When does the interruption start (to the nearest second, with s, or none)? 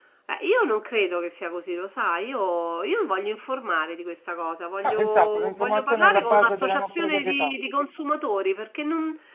5 s